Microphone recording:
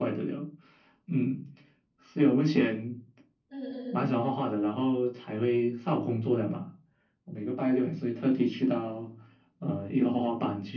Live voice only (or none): 嗯